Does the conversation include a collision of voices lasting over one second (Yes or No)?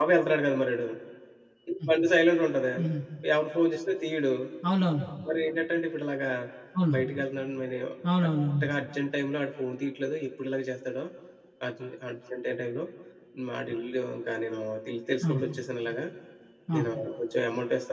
No